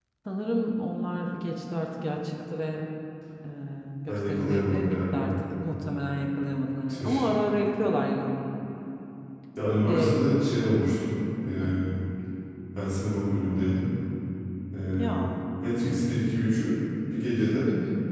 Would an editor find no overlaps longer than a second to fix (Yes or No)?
No